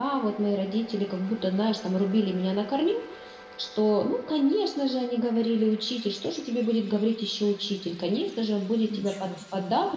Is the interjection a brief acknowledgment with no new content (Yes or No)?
Yes